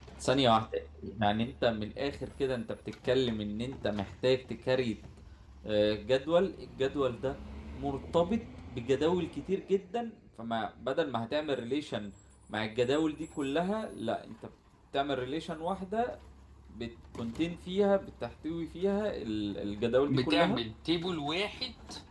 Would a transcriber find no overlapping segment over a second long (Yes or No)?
Yes